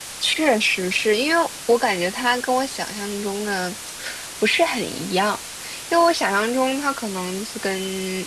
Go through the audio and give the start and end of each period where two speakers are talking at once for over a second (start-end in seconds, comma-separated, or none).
none